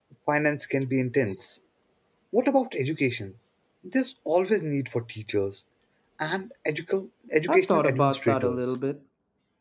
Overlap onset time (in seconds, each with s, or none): 7.5 s